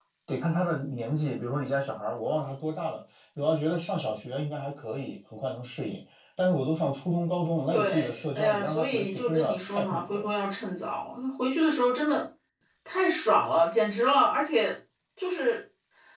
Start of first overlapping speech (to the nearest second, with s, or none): 8 s